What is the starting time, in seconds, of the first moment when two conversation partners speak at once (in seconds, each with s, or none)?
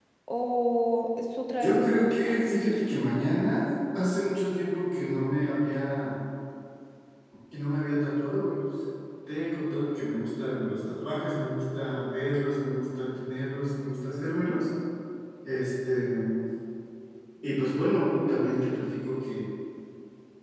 1.6 s